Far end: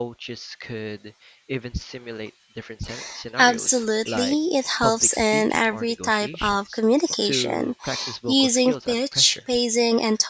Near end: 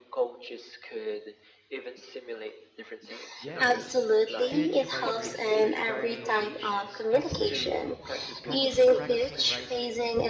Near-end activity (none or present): present